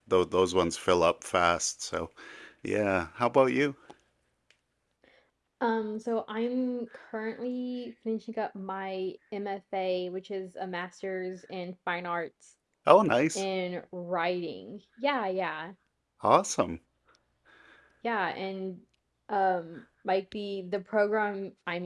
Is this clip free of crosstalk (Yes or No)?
Yes